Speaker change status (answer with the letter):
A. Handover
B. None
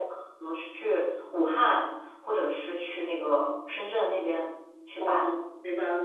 A